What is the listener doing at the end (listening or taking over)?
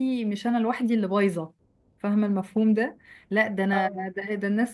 listening